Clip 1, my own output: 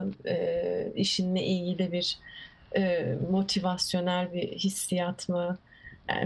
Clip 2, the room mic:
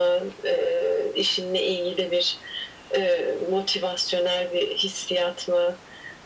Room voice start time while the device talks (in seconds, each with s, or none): none